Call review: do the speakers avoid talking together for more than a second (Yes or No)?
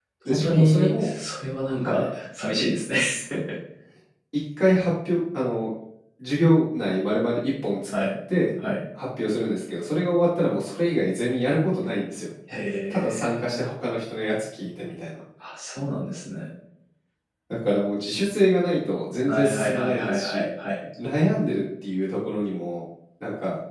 No